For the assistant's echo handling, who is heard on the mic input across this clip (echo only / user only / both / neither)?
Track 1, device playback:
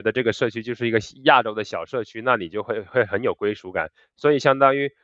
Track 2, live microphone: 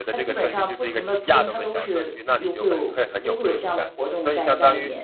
both